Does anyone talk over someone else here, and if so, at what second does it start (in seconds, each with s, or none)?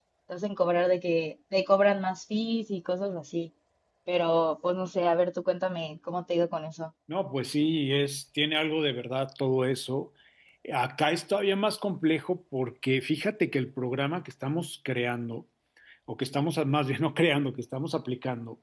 none